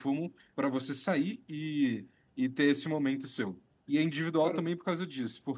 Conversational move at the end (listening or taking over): listening